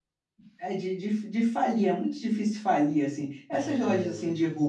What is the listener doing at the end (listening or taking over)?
listening